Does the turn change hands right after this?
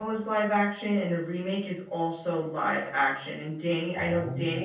No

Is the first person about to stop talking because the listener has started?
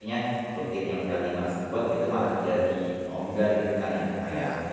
No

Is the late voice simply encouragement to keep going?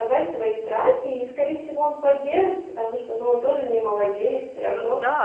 No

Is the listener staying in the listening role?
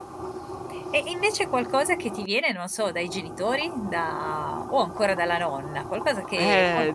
No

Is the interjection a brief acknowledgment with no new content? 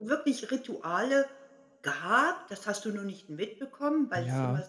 Yes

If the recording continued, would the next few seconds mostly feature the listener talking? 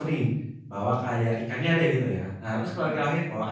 No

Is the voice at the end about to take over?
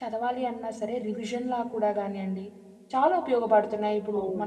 Yes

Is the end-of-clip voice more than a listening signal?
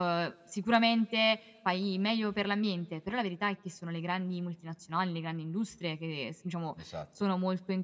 No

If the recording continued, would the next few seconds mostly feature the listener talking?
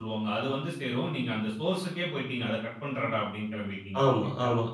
Yes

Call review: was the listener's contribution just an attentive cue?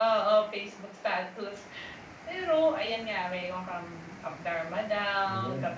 Yes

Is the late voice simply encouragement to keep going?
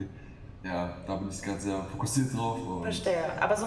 No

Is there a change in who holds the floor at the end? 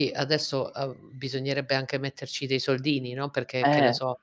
No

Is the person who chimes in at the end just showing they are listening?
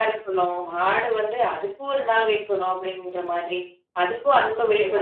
Yes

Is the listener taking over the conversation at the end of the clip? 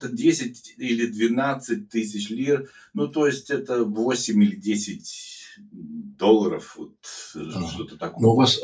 Yes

